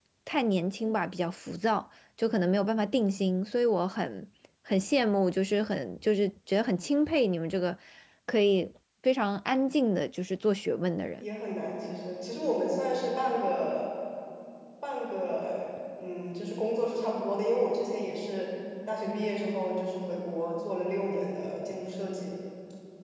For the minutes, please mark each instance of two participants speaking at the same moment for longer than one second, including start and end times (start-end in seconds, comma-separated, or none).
none